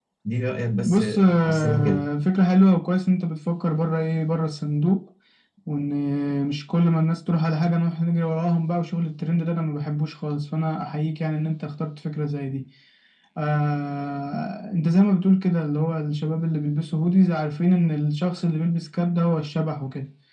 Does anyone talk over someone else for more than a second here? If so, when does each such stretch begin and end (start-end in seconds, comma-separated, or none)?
0.8-2.1